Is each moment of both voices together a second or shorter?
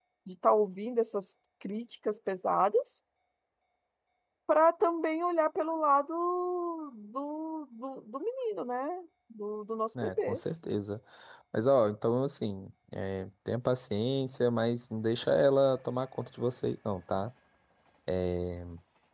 Yes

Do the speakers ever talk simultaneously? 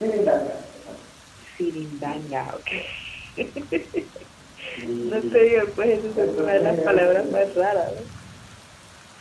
Yes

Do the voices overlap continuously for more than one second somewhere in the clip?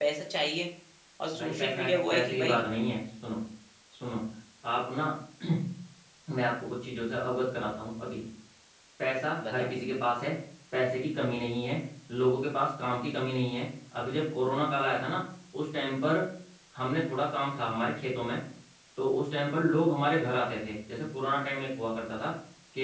Yes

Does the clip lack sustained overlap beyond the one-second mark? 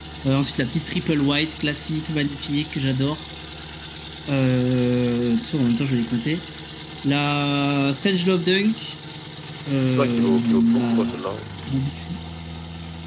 No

